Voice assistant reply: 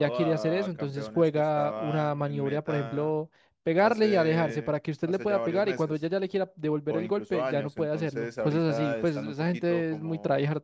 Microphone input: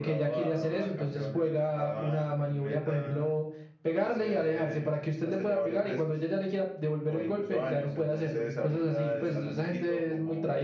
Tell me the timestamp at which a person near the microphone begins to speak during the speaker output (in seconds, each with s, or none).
none